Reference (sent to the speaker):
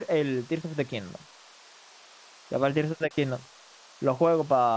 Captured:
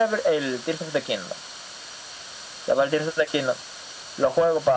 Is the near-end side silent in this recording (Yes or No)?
Yes